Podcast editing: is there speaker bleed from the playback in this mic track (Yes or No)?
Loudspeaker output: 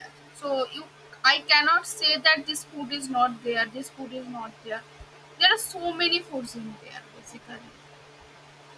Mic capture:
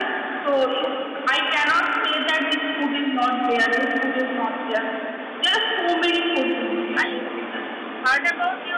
Yes